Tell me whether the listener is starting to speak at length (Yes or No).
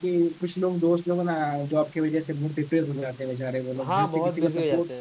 Yes